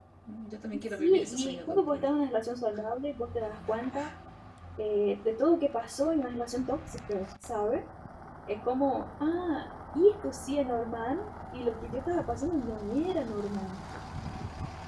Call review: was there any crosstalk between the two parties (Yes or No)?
Yes